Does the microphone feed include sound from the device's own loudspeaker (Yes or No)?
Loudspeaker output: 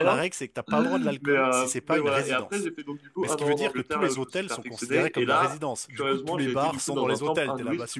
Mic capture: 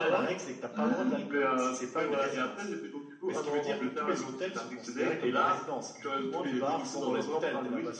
Yes